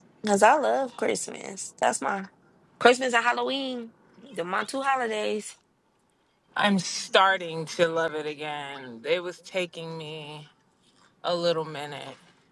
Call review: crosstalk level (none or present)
none